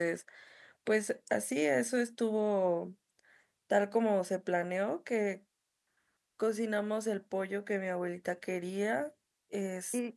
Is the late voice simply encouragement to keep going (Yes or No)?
No